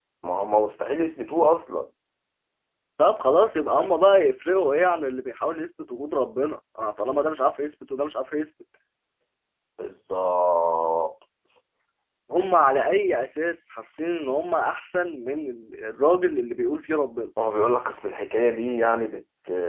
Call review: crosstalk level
none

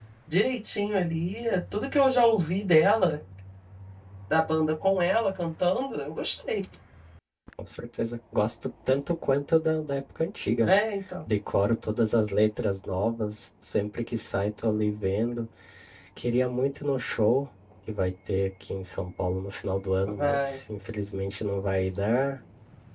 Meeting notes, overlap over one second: none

